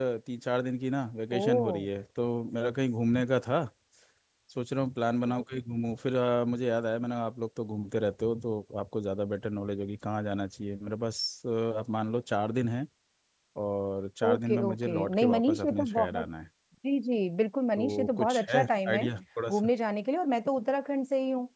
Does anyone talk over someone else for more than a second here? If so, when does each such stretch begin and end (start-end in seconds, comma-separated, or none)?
14.2-16.3, 17.8-19.1